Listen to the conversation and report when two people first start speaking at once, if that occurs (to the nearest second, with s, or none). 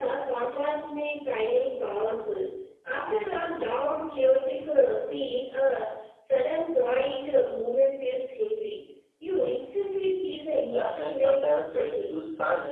11 s